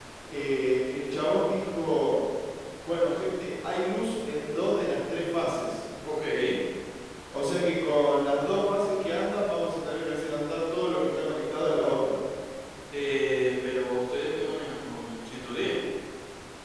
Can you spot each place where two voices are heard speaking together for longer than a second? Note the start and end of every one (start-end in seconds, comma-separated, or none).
none